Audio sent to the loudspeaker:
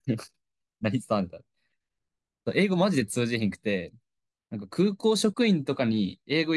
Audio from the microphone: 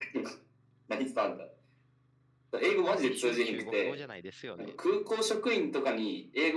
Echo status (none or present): present